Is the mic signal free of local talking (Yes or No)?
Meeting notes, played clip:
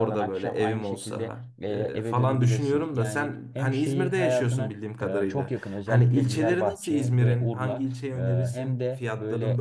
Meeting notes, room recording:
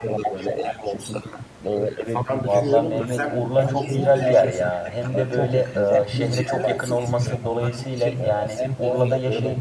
No